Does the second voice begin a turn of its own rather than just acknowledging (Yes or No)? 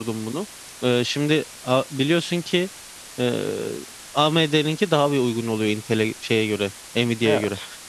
No